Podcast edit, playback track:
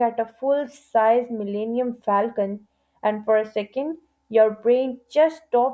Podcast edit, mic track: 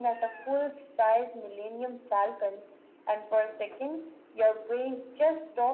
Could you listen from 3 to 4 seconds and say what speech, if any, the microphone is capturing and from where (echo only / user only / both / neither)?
echo only